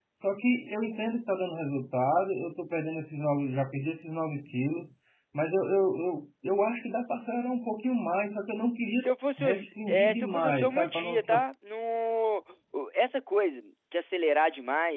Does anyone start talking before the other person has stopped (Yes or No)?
Yes